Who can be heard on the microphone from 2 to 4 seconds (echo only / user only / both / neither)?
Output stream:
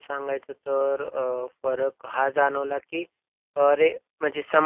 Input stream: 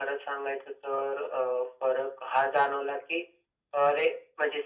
echo only